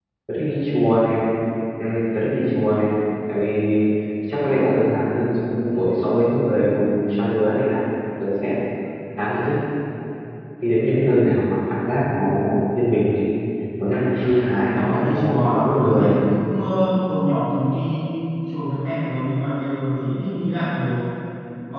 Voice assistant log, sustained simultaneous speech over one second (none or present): present